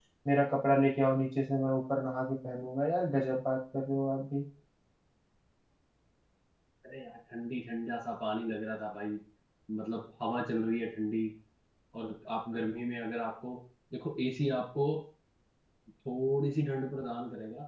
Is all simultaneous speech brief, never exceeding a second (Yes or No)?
Yes